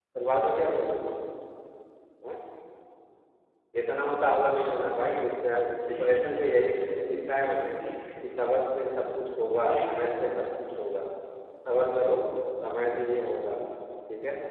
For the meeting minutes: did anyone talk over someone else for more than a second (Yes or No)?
Yes